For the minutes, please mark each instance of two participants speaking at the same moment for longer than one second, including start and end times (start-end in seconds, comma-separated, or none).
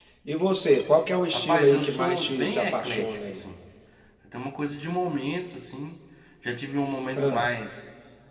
1.3-3.4